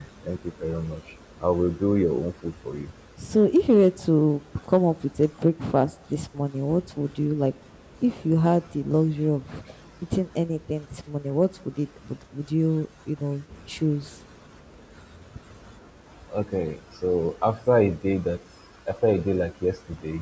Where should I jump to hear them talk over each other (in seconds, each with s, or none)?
none